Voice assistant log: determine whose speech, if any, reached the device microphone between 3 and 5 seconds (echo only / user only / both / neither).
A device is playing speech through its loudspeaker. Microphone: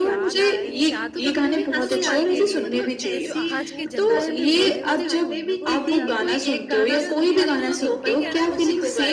both